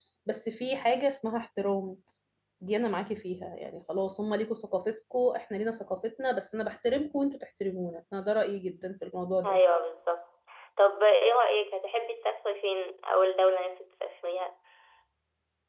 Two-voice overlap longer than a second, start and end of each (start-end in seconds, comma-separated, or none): none